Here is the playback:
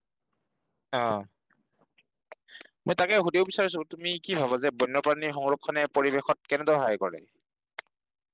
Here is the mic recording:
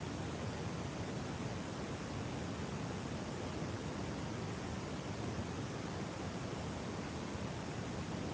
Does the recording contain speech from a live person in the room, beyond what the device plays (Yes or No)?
No